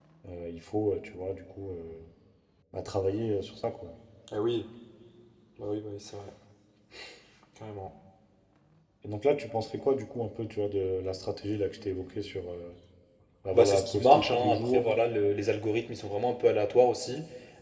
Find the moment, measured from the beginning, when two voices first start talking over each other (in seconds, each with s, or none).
13.5 s